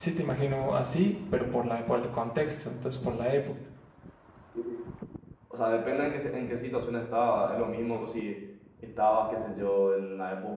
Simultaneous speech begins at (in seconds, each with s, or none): none